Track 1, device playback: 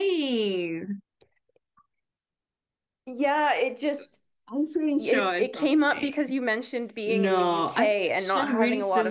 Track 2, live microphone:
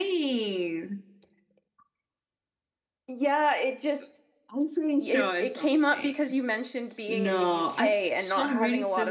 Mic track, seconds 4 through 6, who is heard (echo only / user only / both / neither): echo only